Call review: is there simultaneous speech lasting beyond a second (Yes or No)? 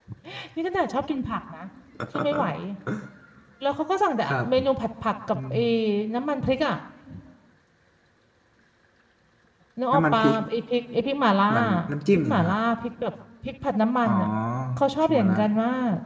No